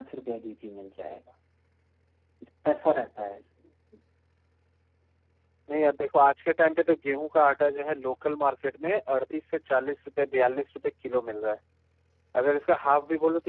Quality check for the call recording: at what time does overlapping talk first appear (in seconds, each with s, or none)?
none